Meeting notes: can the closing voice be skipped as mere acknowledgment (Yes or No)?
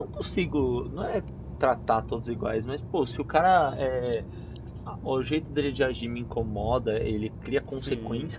Yes